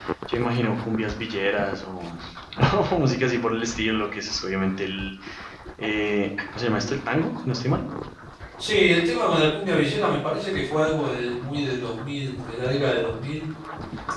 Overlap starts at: none

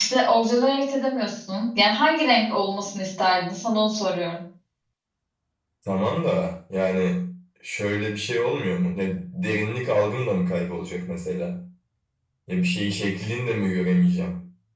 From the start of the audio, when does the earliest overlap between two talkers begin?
none

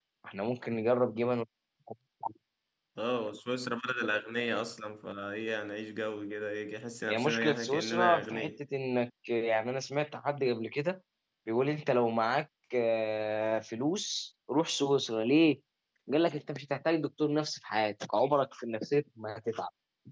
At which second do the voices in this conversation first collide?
7 s

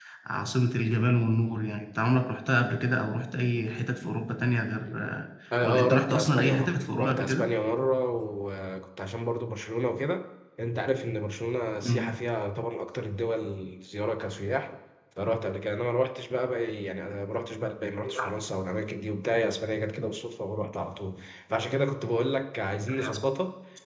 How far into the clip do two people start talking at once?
6 s

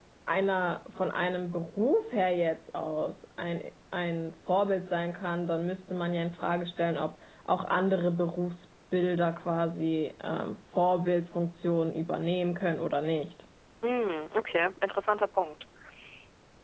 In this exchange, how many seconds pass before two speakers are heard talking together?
none

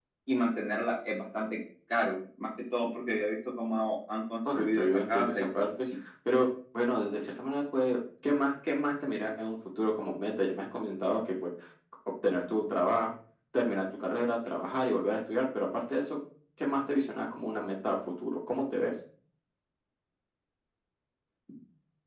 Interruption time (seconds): 4 s

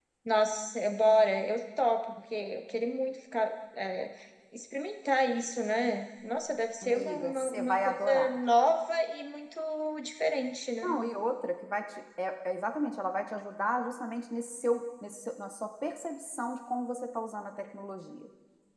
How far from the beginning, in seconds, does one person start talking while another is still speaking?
7 s

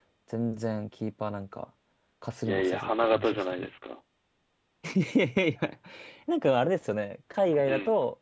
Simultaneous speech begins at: 2 s

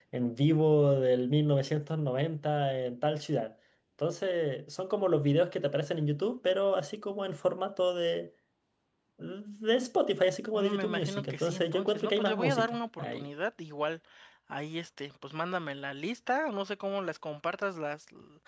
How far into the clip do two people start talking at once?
11 s

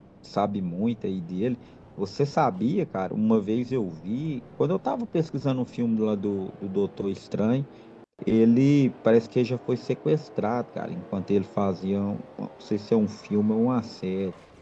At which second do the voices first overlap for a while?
none

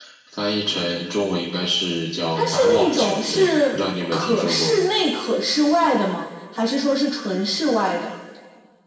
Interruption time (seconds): 2 s

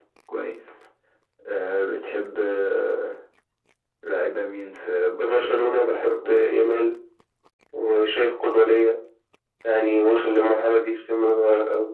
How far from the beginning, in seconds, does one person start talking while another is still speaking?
5 s

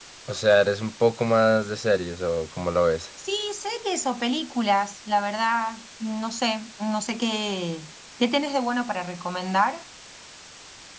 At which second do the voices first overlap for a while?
none

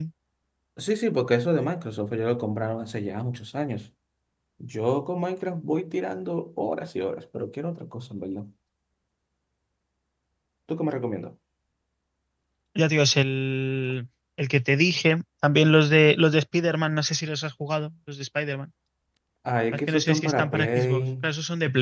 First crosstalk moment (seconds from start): 20 s

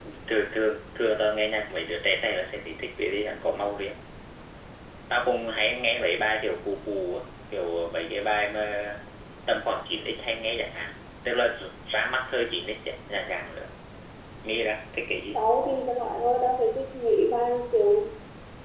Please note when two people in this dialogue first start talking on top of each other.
none

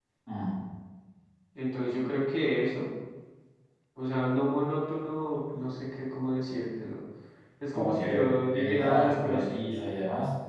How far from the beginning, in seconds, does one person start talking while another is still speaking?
8 s

